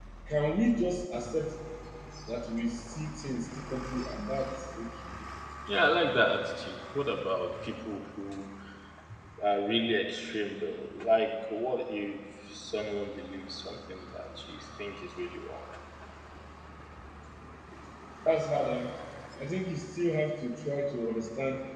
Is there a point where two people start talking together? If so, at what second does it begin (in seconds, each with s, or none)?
none